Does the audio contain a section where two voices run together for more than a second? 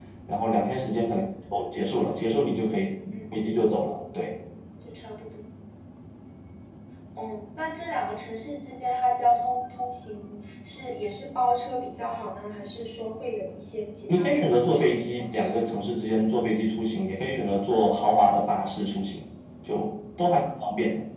Yes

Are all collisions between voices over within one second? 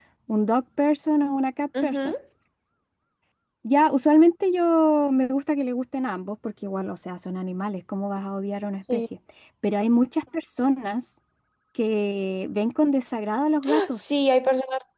Yes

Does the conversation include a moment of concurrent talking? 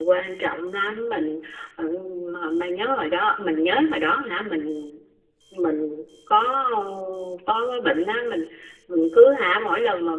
No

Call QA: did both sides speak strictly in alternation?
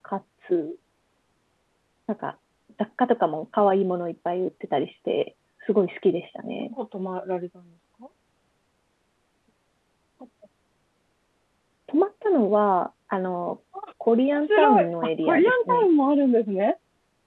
No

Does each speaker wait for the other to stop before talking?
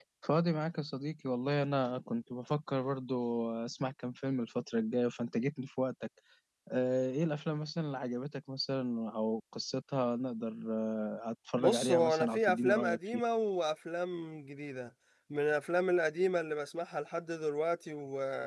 No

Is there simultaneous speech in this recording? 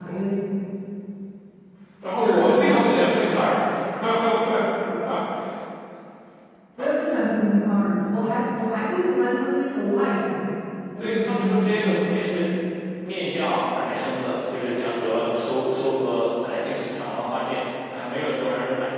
Yes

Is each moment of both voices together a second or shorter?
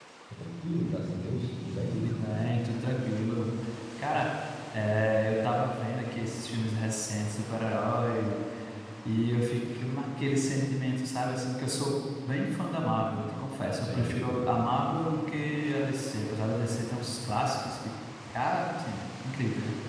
Yes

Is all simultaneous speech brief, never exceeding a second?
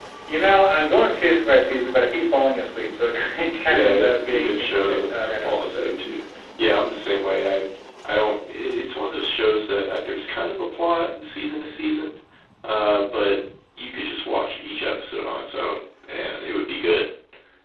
No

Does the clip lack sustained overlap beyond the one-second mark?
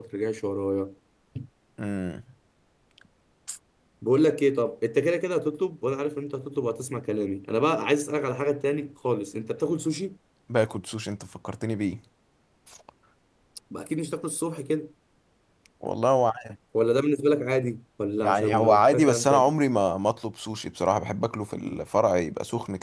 No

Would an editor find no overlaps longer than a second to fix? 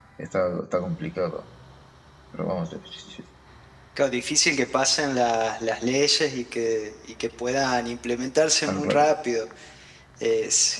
Yes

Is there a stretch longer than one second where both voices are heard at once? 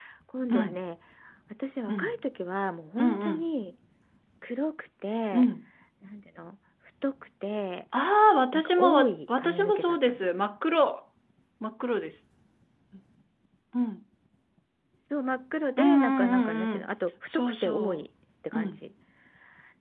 Yes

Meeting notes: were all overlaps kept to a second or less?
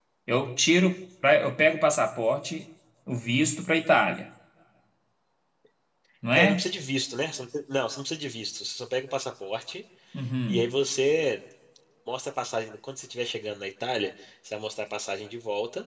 Yes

